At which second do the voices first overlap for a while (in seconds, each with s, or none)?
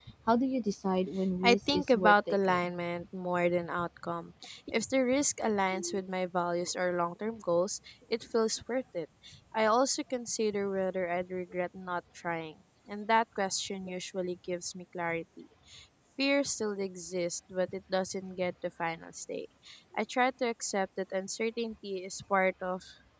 1.4 s